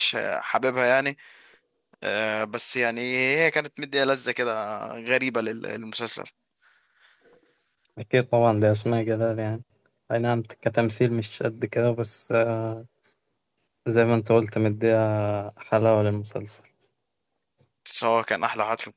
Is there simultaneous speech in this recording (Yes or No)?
No